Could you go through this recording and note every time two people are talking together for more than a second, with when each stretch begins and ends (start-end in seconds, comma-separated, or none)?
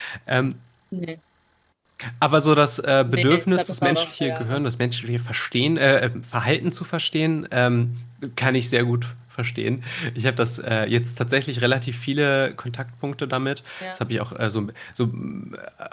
3.1-4.6